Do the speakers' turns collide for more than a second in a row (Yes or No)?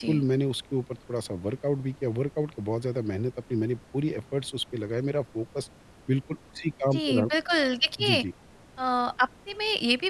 No